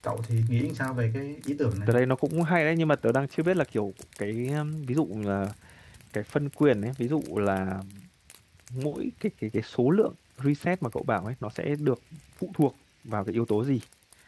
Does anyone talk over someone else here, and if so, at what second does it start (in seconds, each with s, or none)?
none